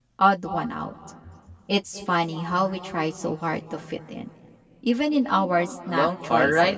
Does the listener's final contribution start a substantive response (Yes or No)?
Yes